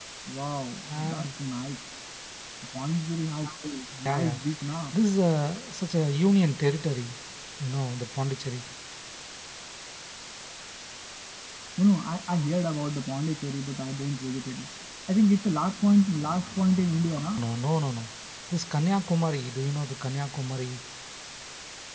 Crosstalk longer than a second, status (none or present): none